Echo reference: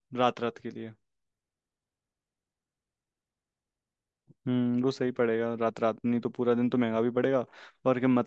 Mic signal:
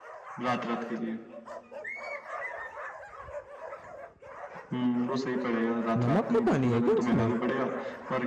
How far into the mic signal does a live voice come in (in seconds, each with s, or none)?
6.0 s